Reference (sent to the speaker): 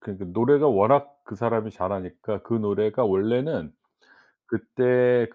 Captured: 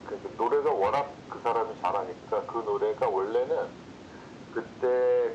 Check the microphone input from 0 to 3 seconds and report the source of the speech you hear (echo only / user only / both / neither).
echo only